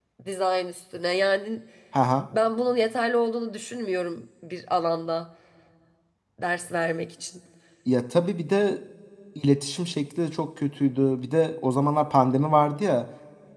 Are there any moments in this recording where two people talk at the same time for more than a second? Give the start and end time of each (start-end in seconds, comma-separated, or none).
none